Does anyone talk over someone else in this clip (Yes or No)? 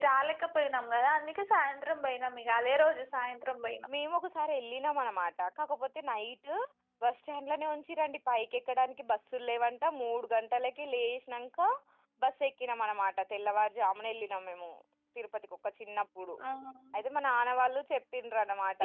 No